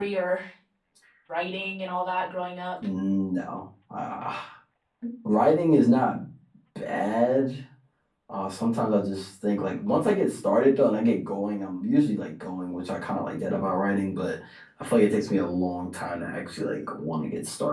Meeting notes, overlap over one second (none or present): none